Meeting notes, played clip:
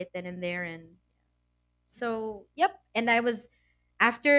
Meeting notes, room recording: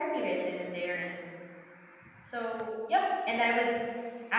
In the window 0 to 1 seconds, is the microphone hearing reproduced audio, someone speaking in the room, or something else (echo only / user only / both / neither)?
echo only